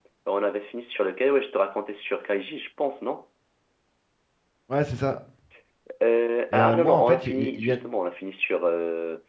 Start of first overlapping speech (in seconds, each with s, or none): 6.5 s